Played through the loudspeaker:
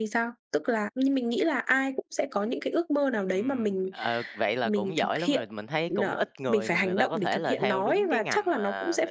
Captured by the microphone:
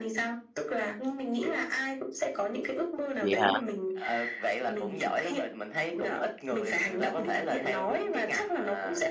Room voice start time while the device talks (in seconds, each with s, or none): 3.2 s